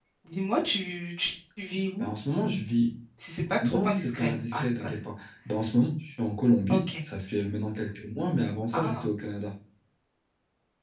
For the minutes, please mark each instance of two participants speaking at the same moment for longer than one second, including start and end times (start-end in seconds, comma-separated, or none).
3.6-4.9